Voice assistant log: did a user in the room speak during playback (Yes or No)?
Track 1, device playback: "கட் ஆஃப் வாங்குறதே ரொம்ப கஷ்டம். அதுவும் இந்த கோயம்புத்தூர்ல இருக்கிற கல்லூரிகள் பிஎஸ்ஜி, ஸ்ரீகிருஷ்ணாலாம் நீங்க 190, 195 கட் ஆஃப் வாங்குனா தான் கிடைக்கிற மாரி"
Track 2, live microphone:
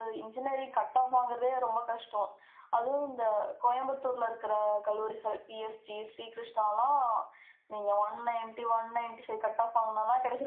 No